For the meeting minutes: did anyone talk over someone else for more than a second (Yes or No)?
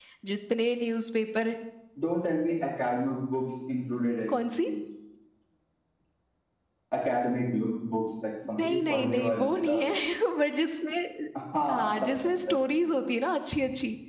Yes